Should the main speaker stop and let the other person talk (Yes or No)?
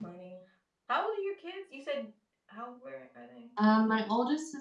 Yes